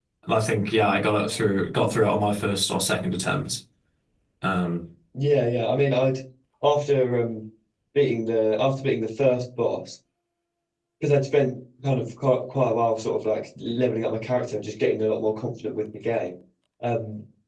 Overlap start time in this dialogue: none

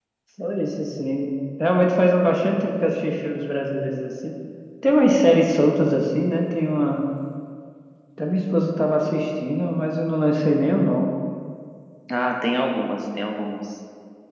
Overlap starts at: none

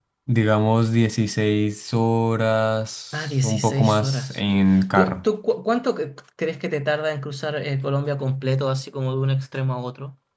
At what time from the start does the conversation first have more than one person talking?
3.1 s

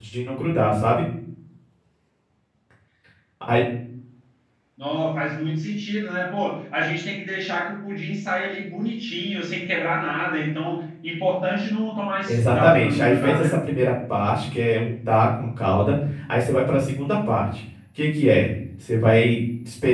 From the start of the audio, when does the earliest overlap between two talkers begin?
12.3 s

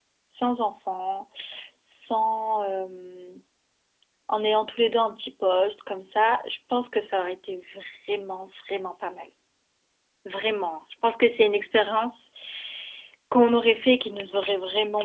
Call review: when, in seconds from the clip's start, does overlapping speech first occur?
none

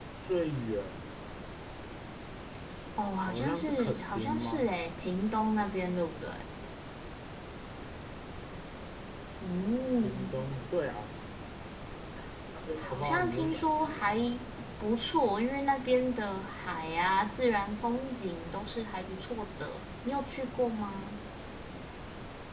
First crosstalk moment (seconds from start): 3.3 s

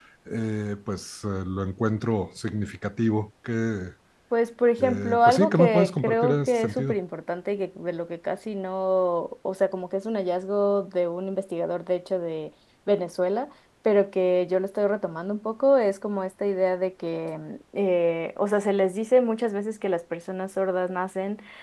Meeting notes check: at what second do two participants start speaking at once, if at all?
4.8 s

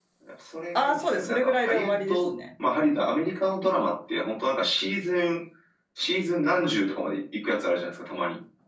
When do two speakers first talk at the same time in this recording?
0.8 s

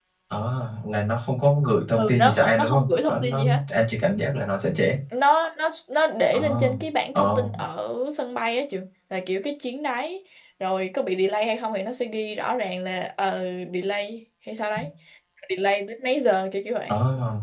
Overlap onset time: 2.0 s

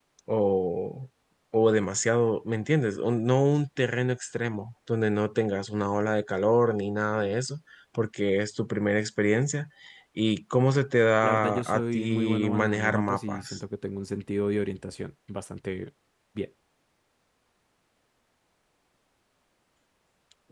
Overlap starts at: 11.2 s

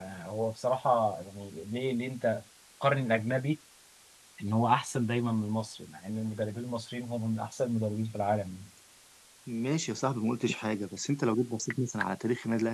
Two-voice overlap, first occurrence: none

